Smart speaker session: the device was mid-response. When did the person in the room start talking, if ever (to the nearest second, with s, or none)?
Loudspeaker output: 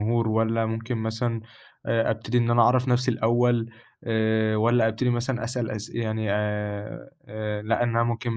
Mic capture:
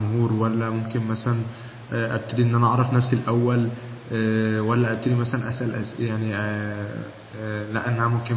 none